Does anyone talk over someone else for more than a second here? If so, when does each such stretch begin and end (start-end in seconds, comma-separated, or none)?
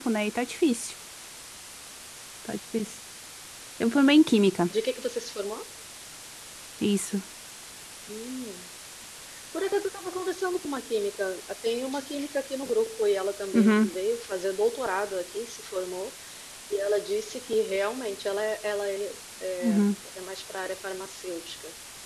none